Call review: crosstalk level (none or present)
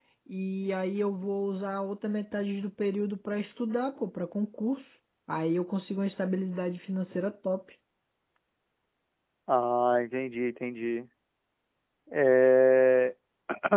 none